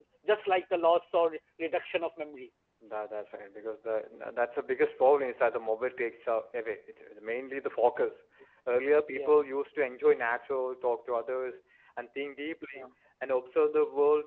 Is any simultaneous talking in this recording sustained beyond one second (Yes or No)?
No